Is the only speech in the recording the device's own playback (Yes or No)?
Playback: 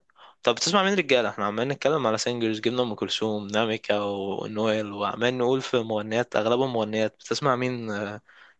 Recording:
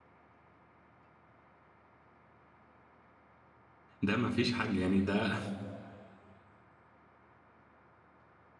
No